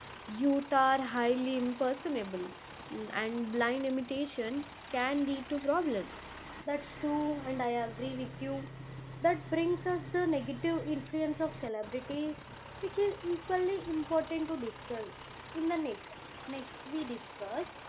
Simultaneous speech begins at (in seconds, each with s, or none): none